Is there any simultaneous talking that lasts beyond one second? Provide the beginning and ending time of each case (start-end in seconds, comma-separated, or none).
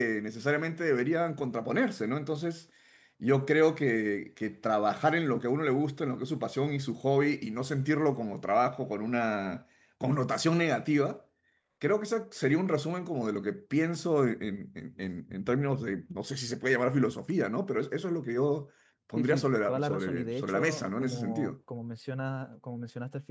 19.2-21.5